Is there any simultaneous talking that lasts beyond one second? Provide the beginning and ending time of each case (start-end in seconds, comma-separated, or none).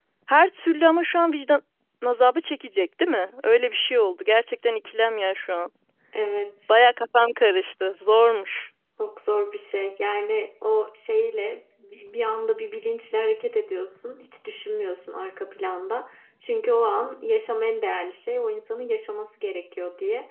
none